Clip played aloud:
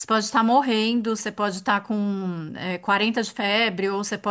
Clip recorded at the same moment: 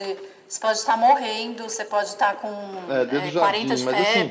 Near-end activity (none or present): present